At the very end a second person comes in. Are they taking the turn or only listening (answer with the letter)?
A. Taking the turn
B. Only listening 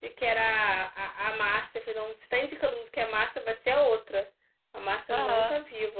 B